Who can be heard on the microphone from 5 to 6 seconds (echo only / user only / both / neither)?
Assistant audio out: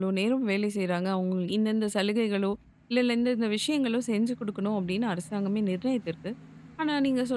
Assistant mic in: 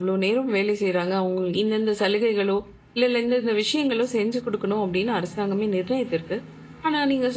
echo only